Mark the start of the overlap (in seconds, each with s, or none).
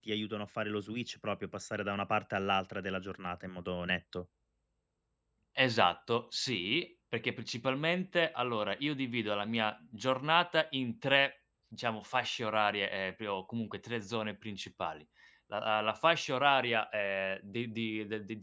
none